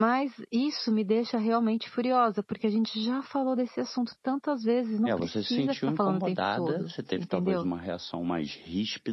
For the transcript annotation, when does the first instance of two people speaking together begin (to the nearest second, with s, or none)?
5 s